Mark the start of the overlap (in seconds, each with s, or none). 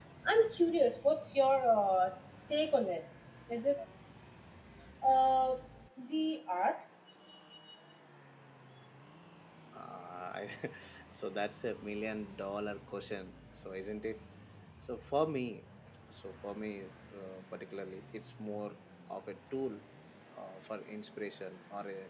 none